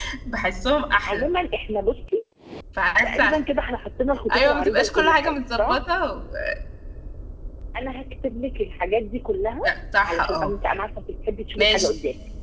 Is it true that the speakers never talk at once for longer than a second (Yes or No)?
No